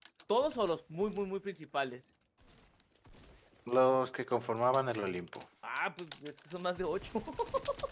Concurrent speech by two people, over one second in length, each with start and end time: none

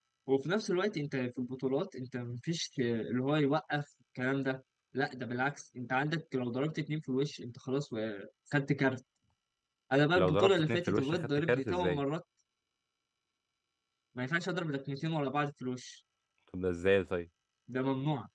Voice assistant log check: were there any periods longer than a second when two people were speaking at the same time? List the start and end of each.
10.1-12.0

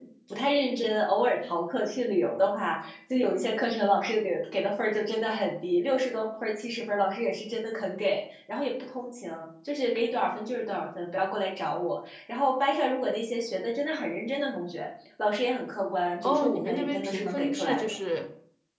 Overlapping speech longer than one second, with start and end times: 16.2-18.0

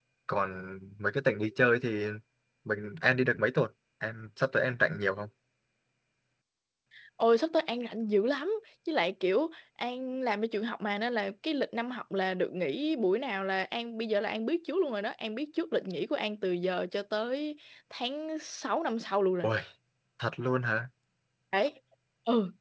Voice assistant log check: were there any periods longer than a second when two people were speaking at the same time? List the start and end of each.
none

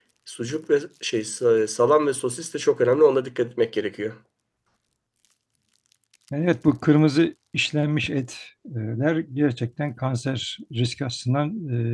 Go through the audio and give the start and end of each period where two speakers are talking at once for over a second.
none

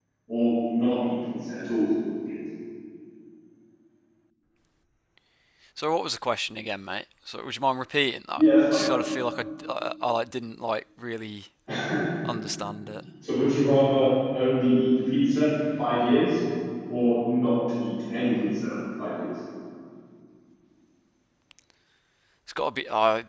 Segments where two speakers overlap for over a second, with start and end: none

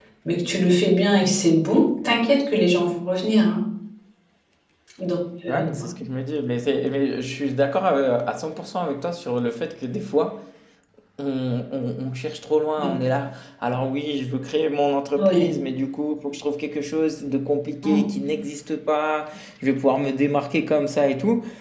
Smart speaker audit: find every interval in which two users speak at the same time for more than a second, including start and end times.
none

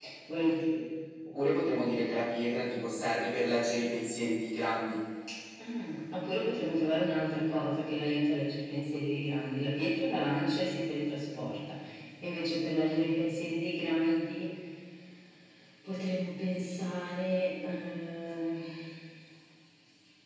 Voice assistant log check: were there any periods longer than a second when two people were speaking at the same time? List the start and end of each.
none

